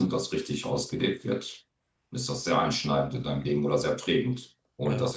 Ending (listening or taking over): listening